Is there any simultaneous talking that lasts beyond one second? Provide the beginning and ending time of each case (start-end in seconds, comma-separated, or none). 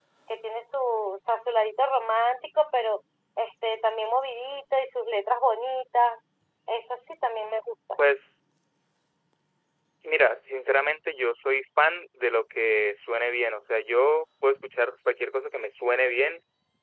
none